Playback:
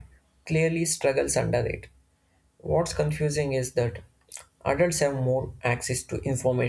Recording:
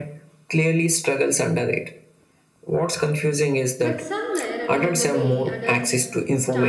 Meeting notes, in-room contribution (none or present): present